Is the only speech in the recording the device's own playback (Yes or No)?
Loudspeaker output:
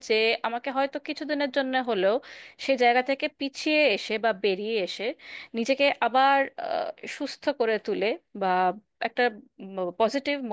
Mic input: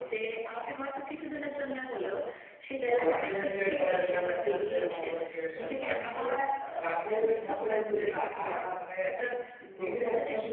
No